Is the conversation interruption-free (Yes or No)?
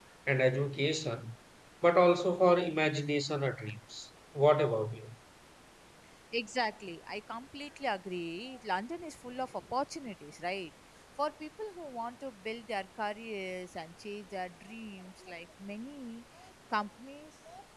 Yes